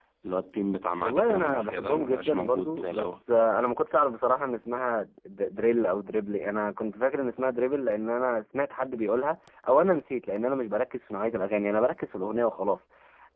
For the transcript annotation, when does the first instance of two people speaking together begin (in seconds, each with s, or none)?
1.0 s